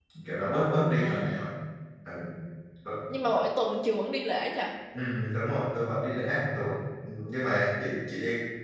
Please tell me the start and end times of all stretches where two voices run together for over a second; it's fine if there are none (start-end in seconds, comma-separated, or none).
none